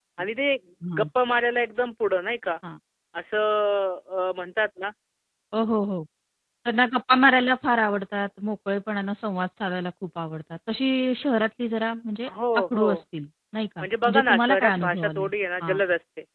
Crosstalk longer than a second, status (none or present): present